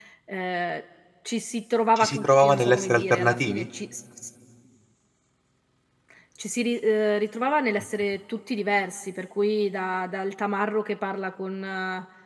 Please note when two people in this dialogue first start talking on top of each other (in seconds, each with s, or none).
2.0 s